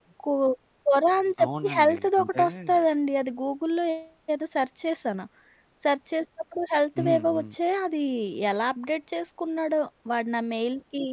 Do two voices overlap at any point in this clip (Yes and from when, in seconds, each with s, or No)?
Yes, from 1.4 s